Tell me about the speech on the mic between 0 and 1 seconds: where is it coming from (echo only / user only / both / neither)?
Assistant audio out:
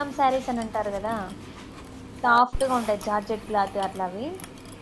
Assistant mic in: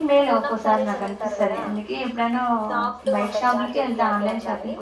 both